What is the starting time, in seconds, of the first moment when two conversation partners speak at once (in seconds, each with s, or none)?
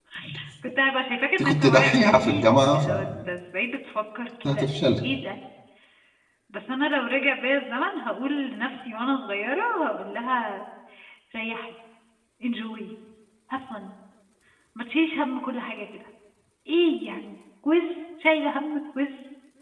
1.5 s